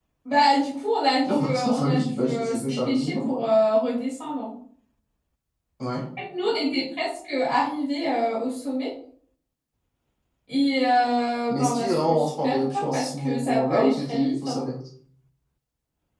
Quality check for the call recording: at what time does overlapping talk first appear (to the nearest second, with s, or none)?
1 s